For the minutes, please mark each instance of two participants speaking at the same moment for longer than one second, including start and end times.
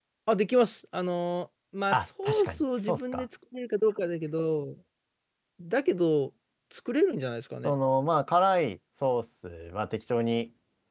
1.9-3.2

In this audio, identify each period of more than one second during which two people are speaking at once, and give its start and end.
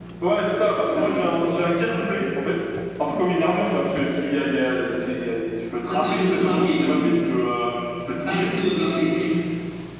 5.9-7.1

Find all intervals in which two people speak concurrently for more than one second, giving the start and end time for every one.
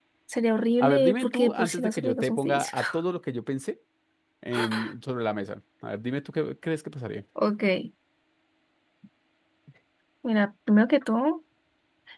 0.8-2.8

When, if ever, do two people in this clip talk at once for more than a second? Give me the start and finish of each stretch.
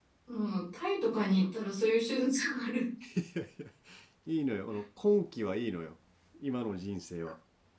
none

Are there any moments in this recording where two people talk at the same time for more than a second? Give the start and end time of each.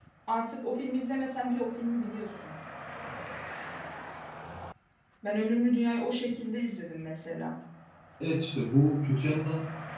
none

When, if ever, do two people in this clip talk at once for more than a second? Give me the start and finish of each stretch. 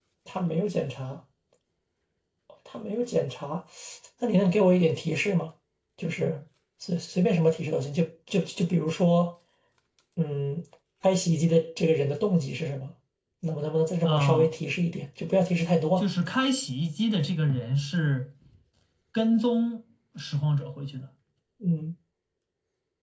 none

